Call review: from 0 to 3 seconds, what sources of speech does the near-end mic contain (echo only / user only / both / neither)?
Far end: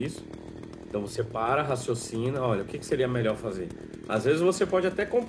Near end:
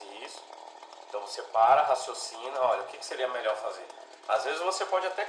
echo only